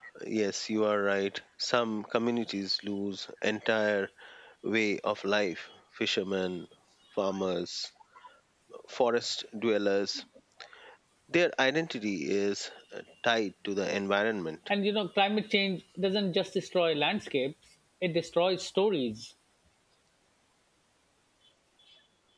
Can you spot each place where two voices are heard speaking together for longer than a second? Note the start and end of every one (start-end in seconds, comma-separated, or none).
none